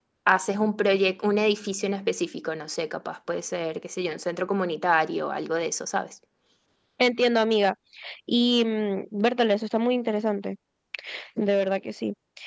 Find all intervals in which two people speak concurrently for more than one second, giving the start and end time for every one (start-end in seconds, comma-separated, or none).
none